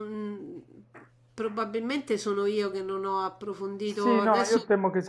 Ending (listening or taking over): taking over